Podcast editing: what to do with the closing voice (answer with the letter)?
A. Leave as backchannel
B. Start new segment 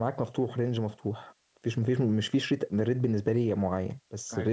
A